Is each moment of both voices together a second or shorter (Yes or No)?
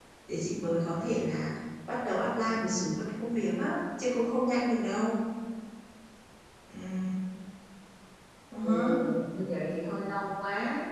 Yes